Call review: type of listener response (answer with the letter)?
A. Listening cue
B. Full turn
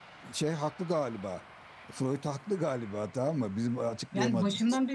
B